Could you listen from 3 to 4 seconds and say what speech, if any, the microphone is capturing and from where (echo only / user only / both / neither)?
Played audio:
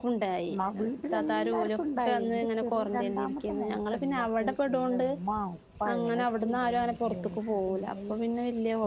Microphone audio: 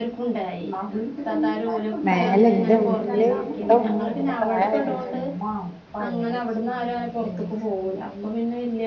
both